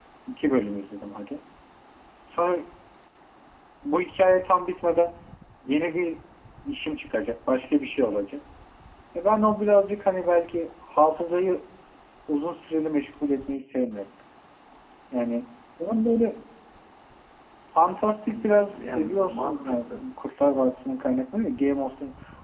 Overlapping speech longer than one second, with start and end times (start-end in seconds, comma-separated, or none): 18.3-20.0